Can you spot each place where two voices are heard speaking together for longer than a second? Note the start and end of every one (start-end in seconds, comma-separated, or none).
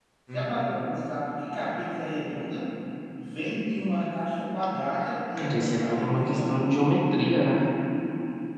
5.4-6.7